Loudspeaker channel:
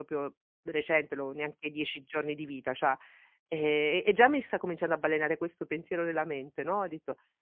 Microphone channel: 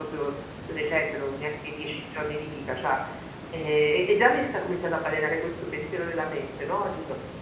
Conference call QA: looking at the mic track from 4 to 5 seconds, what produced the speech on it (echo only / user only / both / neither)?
echo only